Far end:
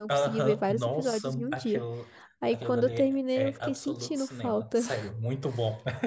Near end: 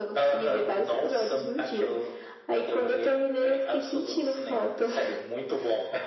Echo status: present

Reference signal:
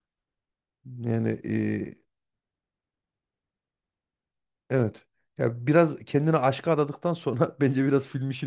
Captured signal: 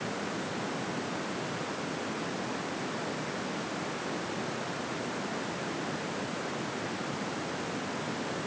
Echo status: none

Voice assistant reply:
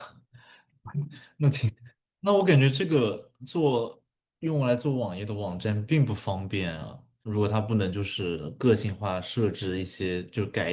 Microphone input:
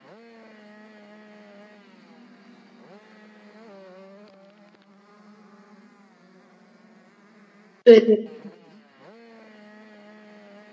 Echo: none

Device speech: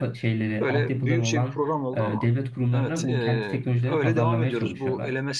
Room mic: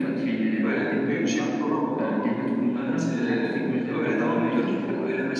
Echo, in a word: present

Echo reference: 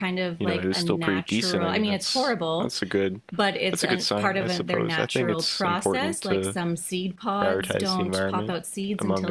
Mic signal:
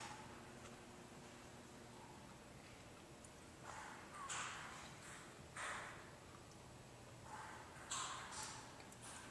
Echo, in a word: none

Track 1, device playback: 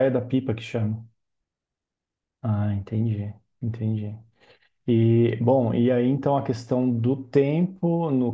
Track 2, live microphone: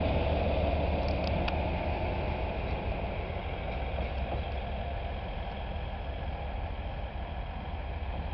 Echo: none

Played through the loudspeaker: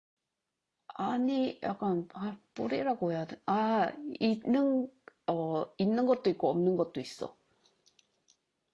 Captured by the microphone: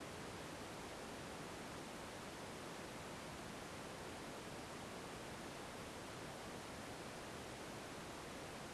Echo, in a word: none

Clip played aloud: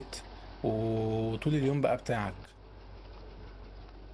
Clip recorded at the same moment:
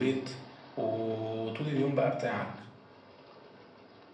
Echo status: present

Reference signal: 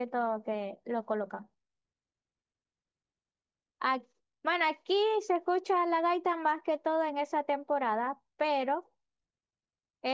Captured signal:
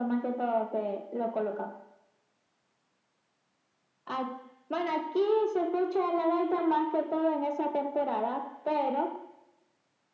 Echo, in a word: present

